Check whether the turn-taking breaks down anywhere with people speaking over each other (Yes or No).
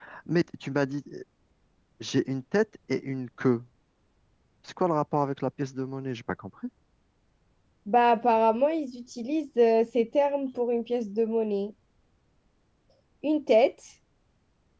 No